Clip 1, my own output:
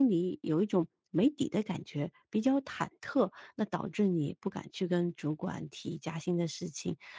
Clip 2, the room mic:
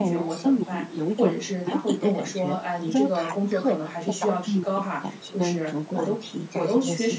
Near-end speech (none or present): present